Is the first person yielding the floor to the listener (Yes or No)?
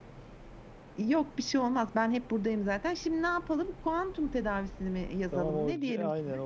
Yes